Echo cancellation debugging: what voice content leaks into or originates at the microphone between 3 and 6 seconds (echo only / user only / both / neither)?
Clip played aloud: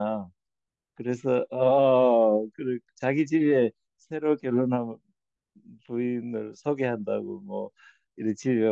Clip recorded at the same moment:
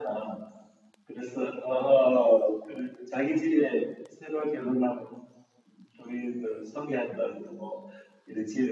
echo only